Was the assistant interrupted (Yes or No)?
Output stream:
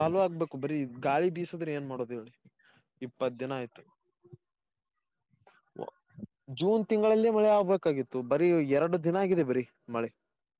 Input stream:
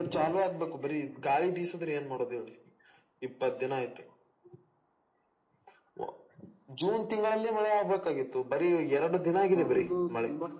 Yes